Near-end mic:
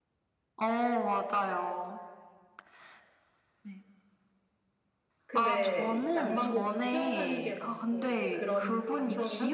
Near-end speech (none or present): present